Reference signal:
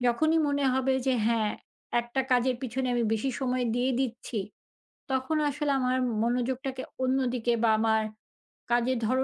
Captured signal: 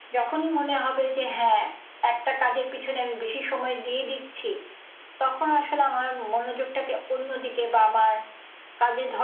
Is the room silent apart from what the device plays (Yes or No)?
Yes